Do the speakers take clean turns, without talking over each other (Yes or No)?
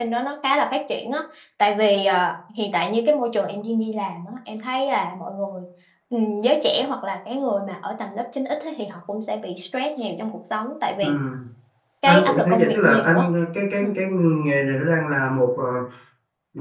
No